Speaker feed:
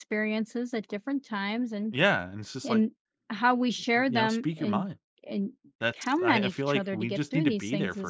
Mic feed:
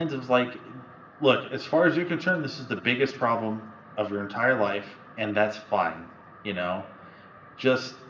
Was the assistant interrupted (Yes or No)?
Yes